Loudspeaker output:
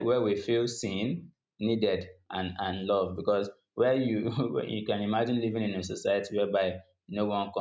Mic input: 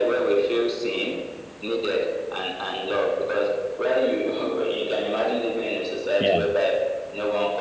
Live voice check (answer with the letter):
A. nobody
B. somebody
B